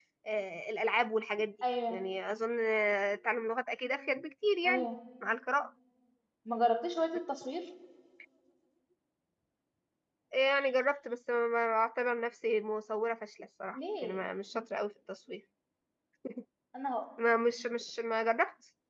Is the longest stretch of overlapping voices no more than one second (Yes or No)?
Yes